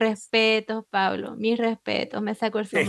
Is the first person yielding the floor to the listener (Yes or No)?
Yes